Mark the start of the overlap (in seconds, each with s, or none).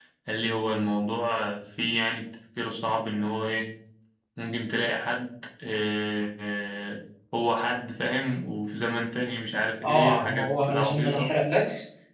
9.8 s